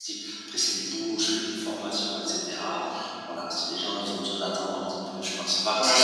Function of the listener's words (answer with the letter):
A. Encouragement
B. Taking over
B